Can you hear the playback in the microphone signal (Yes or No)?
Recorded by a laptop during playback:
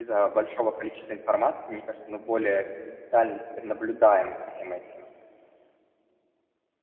No